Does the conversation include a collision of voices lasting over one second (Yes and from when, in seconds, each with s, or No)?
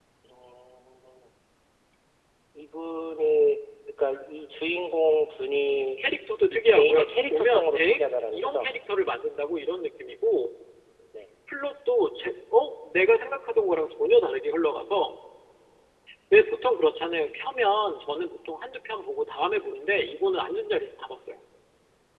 Yes, from 6.5 s